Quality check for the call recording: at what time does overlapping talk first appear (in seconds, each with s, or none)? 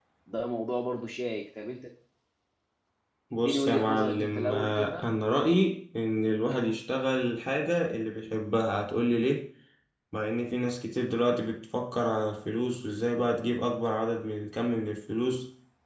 3.4 s